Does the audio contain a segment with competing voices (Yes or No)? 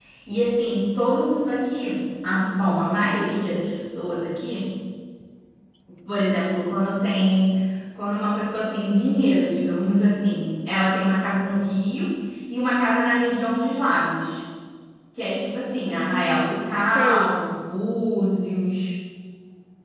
Yes